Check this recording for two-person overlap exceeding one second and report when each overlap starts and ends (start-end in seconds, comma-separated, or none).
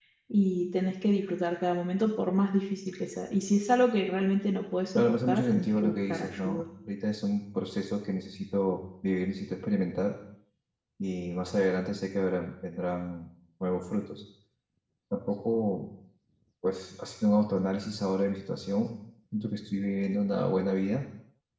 4.9-6.6